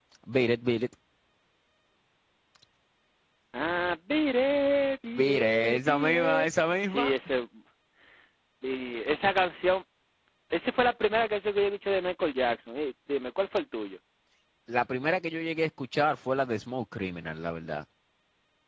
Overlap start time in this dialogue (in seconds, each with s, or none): 5.2 s